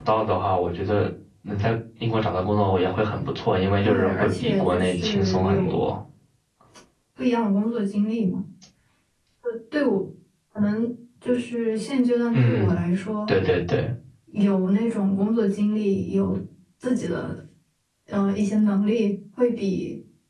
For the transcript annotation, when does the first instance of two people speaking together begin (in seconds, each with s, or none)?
3.8 s